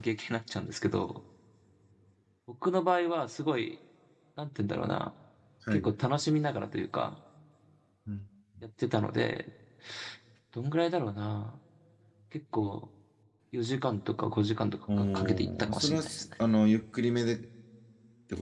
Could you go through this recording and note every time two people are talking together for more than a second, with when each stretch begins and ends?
15.0-16.2

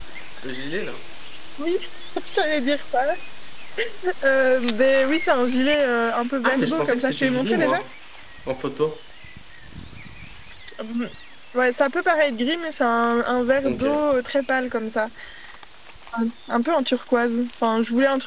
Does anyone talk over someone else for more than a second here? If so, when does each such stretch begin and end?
6.4-7.8

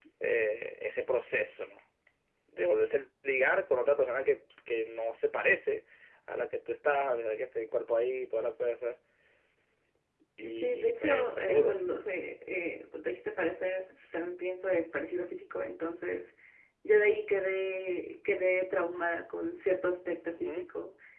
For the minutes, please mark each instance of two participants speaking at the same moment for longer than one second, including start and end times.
10.5-11.8

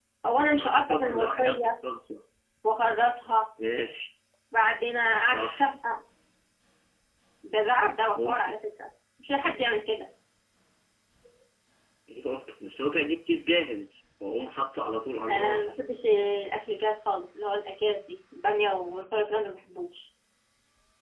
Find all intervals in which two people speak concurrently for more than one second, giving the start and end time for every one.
0.5-1.8

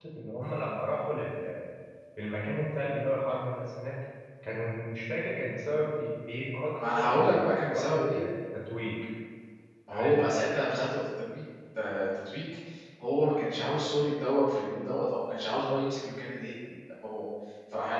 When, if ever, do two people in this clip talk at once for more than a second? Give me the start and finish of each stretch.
6.8-8.2

